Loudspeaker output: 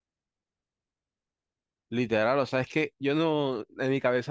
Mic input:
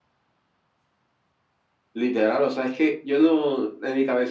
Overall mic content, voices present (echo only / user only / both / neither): echo only